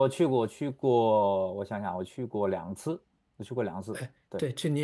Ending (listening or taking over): taking over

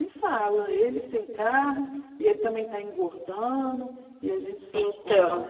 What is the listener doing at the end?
listening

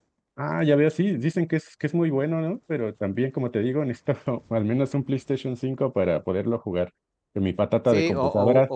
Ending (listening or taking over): taking over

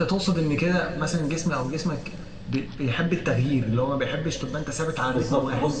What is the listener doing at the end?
taking over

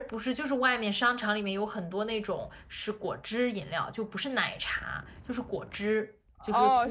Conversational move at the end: taking over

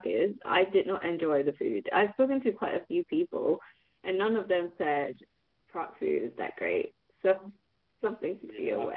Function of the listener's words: taking over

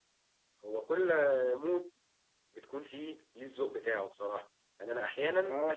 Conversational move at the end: listening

